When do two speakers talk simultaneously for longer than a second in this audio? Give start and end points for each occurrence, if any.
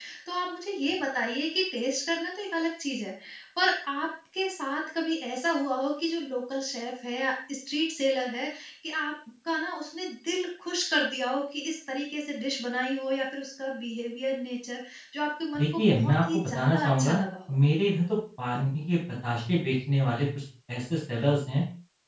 15.6-17.5

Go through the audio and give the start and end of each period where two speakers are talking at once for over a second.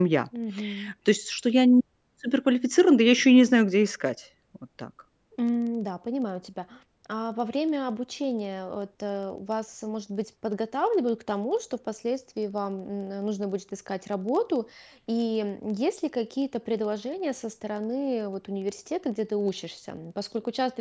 none

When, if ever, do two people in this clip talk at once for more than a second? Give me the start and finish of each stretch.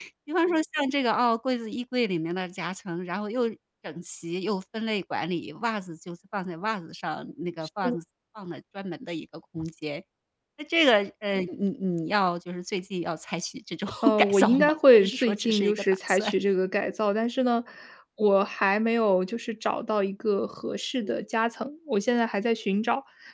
14.0-16.3

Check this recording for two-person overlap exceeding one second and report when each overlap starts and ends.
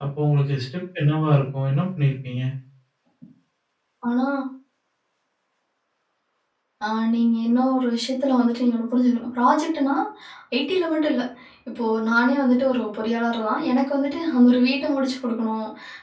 none

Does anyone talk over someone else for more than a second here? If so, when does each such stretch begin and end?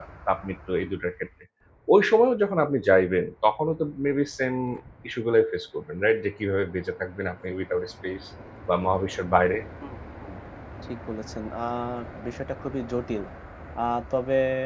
none

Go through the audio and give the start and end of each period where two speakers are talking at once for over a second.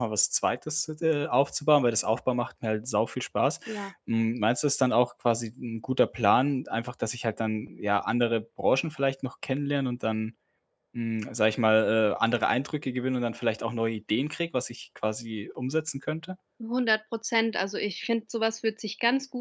none

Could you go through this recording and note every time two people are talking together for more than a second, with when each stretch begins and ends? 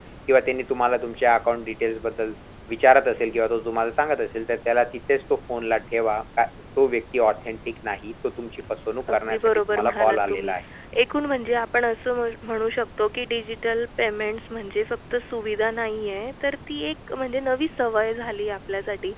9.1-10.5

